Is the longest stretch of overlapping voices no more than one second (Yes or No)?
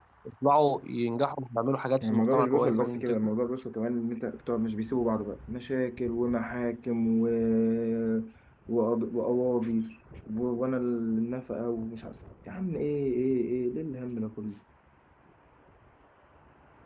No